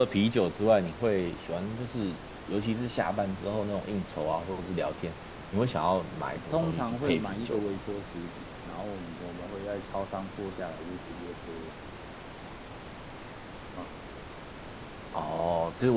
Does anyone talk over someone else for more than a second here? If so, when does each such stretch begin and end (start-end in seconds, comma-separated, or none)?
6.5-7.8